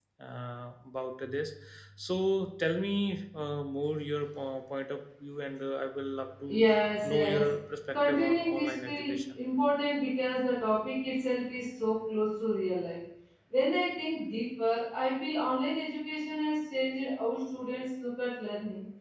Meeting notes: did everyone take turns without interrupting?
No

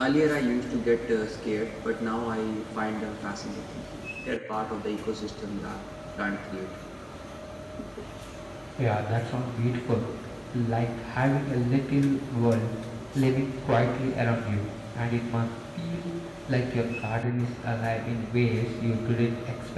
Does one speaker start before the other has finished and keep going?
No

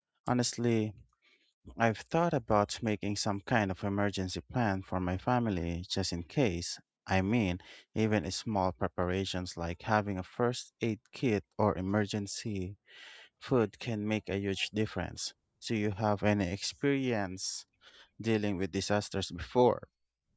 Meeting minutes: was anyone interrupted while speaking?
No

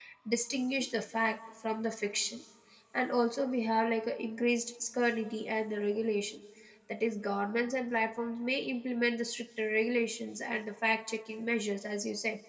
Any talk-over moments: No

